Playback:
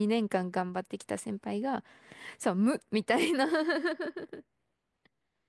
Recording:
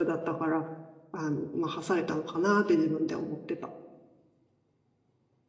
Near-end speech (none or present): present